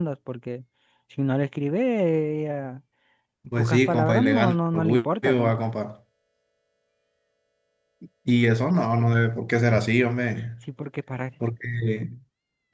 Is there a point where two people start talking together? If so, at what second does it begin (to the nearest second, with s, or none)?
4 s